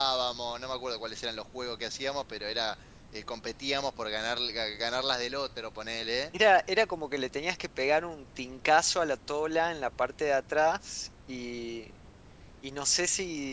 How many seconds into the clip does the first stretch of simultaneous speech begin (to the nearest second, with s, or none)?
none